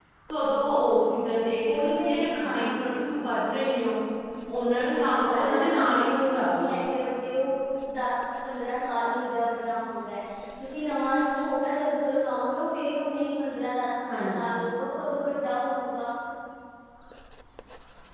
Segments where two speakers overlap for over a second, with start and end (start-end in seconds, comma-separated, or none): 4.9-6.7